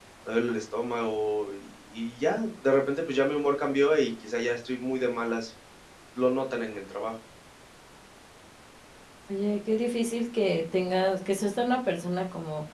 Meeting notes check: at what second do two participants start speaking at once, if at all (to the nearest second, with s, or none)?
none